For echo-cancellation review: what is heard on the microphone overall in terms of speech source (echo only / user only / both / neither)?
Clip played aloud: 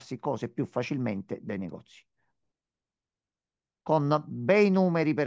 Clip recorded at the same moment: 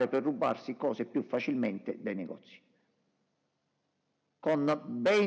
echo only